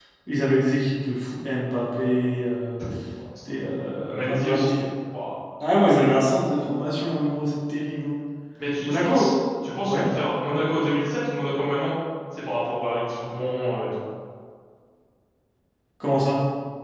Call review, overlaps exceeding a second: present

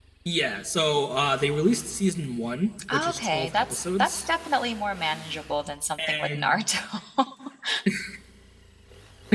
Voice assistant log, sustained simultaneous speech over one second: present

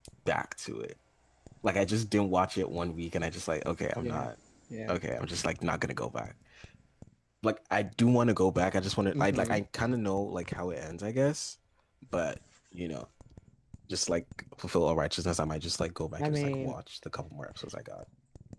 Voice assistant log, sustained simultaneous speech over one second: none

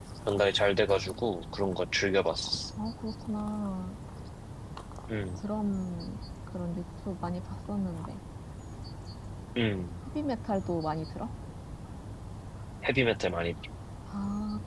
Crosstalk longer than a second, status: none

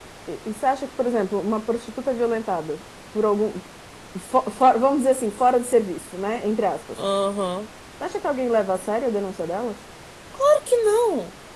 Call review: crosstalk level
none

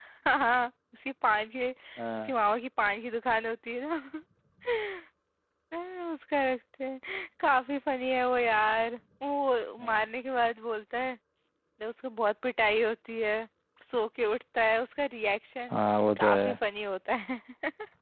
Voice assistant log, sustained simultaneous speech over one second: none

